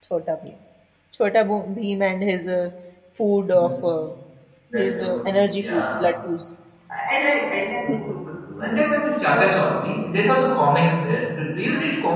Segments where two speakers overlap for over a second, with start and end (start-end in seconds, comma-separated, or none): 4.7-6.1